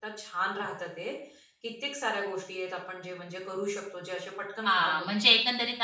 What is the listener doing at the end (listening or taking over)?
taking over